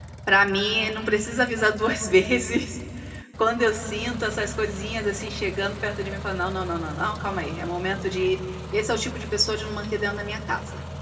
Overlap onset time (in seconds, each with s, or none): none